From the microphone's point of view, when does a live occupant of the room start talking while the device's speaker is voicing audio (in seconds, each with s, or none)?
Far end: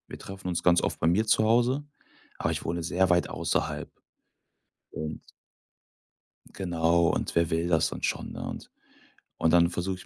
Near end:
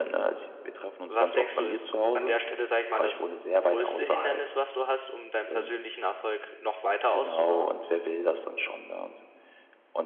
1.0 s